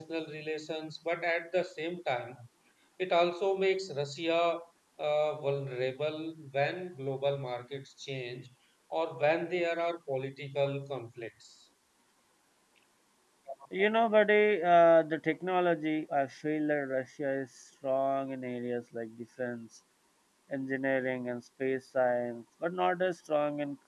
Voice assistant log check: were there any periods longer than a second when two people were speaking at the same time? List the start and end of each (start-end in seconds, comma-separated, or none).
none